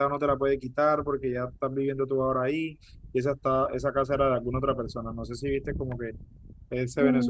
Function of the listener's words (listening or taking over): taking over